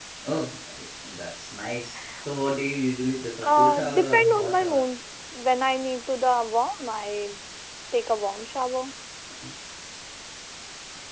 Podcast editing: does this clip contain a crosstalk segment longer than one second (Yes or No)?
Yes